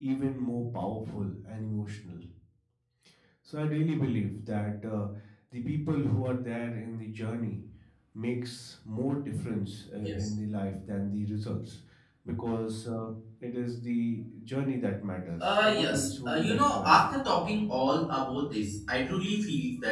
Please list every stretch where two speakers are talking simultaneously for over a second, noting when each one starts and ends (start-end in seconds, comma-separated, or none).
15.4-17.0